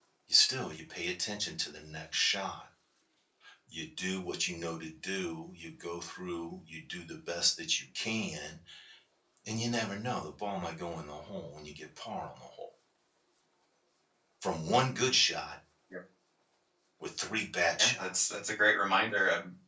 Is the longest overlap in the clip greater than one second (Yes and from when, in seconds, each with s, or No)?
No